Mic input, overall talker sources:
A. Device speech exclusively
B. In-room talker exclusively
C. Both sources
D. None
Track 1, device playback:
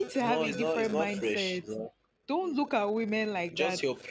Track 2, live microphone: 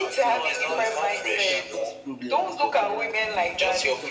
C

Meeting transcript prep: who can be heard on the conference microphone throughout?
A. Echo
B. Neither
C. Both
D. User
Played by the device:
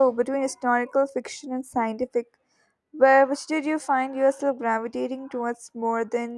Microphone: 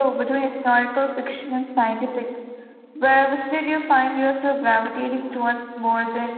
A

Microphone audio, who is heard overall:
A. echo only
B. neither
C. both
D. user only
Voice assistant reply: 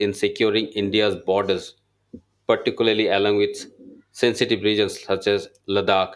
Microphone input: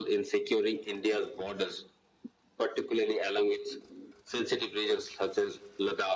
A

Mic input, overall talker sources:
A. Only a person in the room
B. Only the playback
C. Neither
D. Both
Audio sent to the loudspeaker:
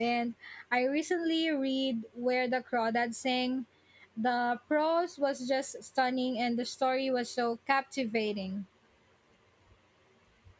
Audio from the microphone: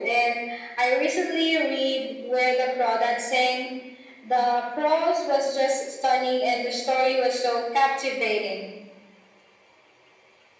B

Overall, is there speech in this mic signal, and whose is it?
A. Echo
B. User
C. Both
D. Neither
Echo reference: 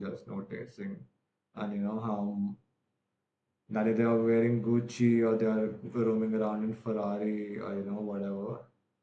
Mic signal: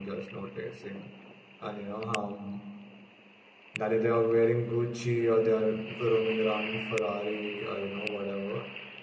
A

